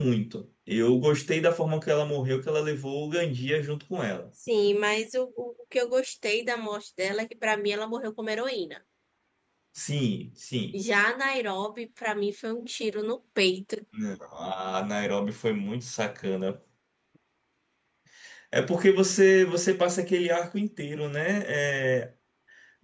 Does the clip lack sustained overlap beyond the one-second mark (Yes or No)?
Yes